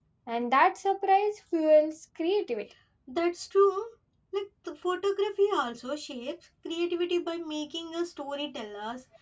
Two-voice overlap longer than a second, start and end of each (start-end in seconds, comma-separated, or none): none